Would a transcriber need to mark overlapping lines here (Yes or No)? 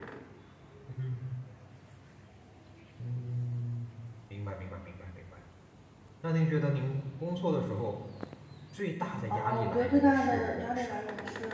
Yes